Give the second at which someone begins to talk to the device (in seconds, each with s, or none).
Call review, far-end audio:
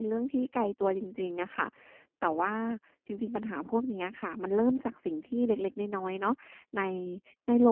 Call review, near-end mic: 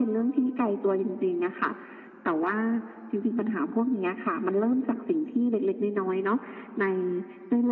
none